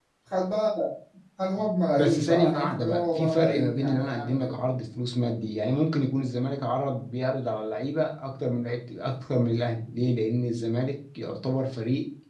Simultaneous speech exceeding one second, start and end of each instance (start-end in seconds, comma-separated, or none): 1.9-4.5